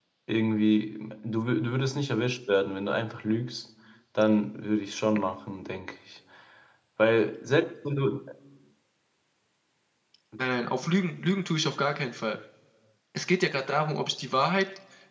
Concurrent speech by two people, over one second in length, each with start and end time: none

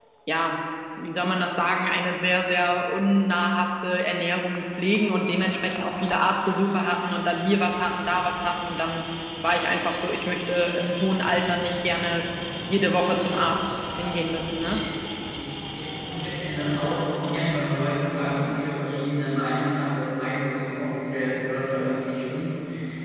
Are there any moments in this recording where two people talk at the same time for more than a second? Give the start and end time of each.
13.2-14.8

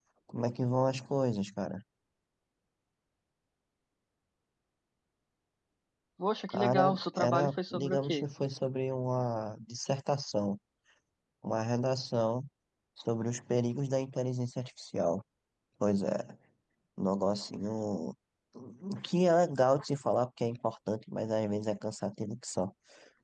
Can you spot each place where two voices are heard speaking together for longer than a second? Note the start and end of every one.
6.5-8.2

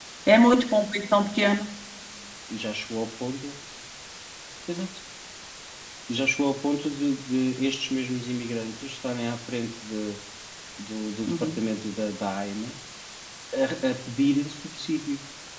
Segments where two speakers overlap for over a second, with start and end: none

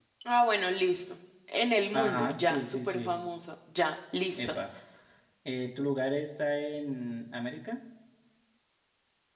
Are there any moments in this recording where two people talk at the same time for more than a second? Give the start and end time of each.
1.9-3.2

